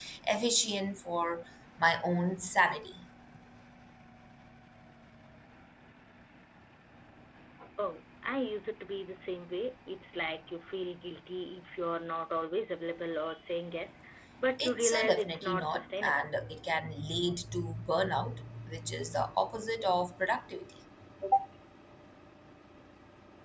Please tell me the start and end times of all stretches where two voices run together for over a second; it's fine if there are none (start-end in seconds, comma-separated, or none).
14.6-16.3